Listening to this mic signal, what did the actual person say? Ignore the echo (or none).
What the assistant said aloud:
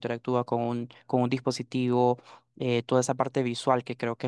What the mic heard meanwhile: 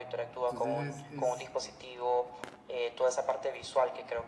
Entonces es, es